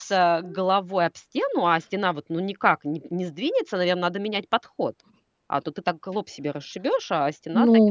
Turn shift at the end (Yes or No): Yes